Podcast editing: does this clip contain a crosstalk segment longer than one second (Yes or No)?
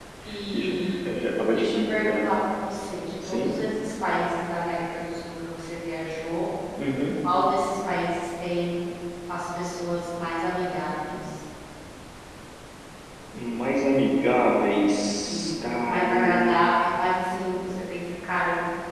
Yes